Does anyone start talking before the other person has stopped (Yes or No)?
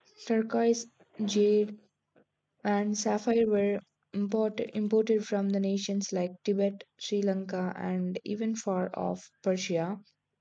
No